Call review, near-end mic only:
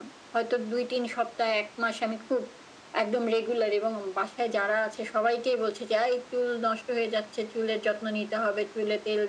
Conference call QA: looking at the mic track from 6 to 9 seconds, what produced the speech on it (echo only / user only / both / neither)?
echo only